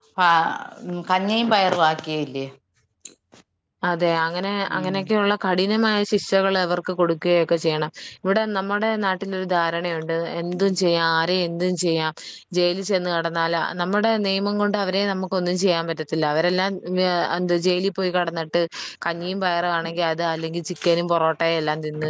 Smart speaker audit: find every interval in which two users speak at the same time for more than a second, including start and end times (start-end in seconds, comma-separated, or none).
none